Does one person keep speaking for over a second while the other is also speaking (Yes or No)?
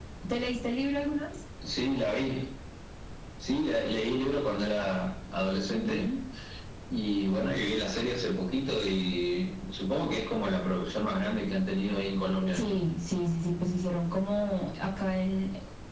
No